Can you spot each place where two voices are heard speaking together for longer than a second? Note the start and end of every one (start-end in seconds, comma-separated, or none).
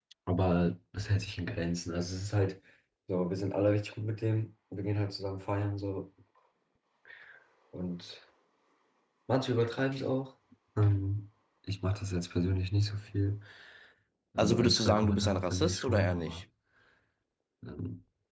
14.4-16.4